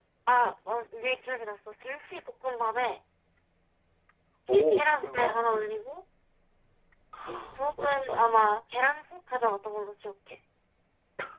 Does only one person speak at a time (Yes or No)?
No